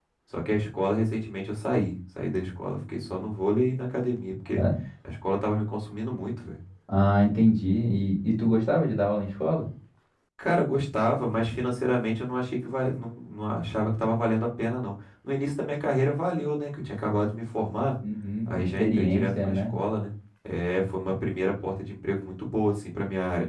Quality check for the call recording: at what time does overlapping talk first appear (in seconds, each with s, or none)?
18.5 s